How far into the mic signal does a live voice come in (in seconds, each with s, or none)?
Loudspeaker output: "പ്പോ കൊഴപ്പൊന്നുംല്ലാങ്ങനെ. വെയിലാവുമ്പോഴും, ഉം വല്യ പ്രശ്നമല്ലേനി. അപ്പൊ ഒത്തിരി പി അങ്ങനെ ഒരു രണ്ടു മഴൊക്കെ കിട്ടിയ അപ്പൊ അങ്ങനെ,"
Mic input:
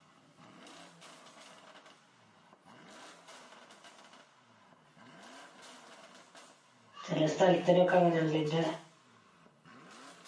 7.1 s